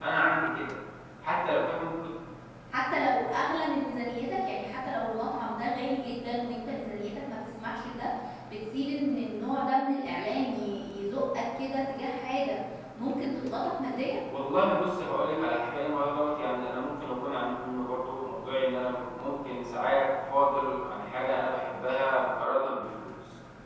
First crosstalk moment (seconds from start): none

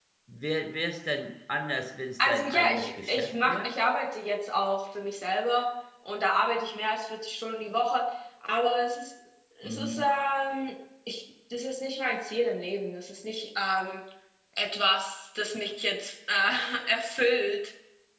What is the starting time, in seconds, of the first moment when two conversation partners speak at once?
2 s

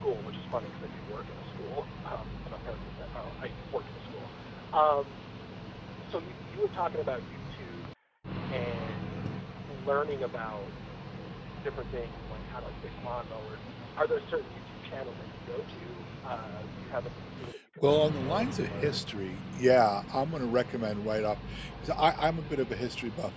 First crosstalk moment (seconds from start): 18 s

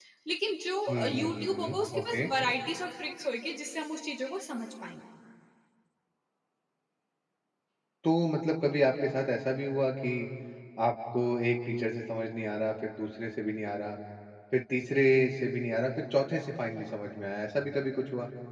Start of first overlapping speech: 1 s

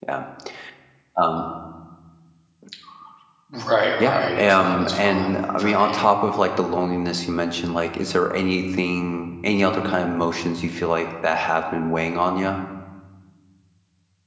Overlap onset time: 4 s

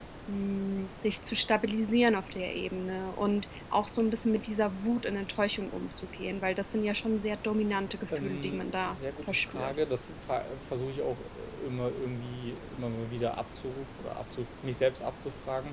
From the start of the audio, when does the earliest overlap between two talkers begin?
8 s

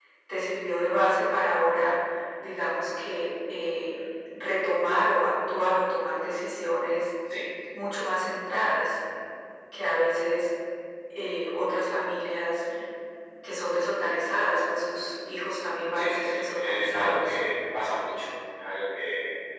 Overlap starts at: 16 s

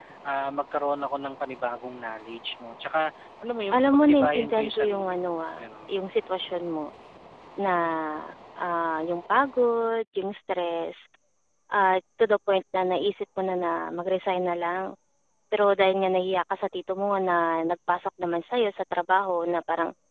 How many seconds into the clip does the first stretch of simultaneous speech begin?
4 s

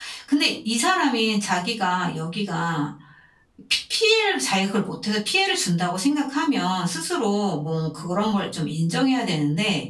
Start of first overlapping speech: none

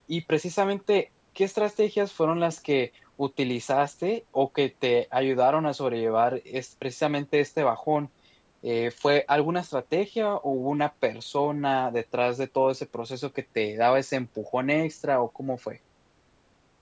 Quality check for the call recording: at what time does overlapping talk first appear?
none

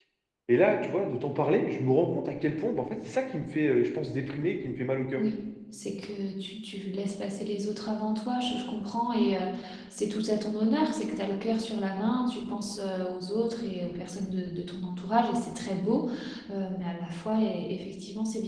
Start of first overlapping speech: none

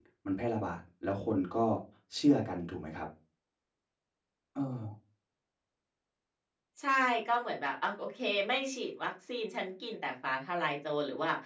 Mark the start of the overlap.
none

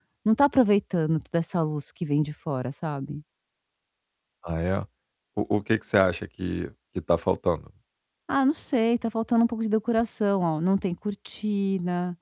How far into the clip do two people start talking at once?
none

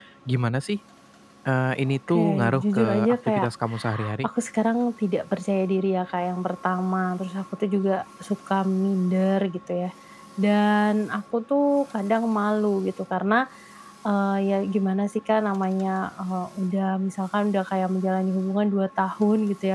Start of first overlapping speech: 2 s

